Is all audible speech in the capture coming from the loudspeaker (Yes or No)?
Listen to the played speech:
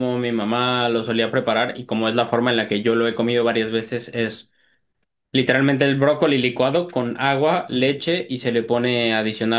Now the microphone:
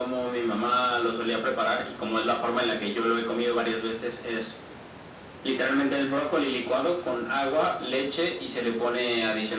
Yes